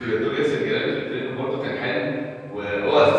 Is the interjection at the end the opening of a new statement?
No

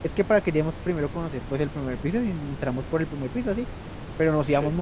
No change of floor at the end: Yes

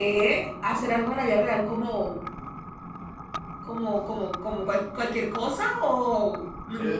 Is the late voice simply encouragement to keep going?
No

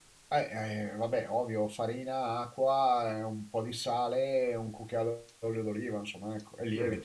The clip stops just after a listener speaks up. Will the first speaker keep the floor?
No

